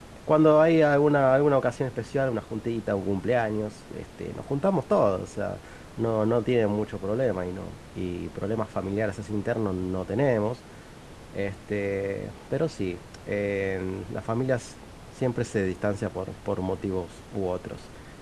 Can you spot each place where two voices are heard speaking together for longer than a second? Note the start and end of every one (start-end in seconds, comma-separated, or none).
none